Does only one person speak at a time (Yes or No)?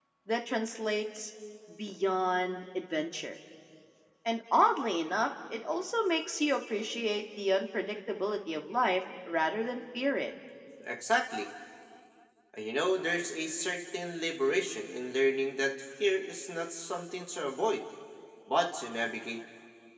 Yes